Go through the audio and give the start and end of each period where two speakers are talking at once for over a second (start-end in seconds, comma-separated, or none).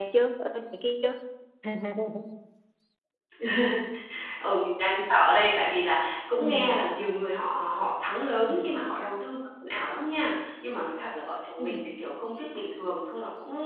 none